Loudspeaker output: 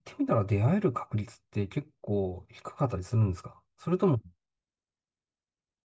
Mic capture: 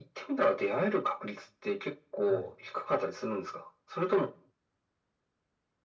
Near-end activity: present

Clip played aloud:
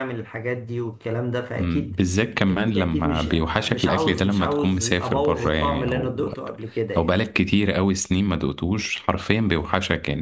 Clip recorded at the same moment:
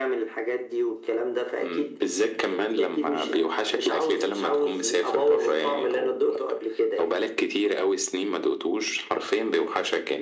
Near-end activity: none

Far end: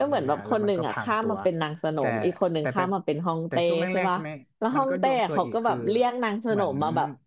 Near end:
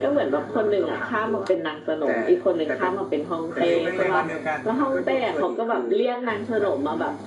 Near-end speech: present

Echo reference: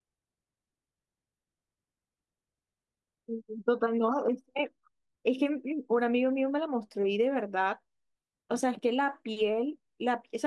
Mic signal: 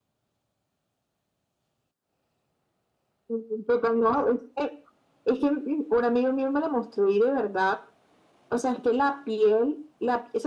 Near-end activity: none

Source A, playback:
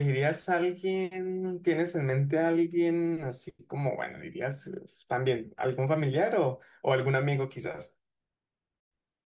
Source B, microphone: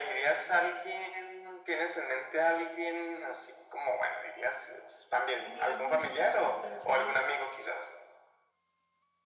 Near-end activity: present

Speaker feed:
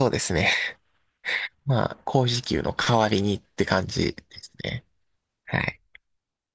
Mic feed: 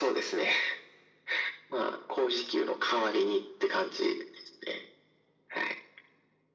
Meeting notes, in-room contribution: none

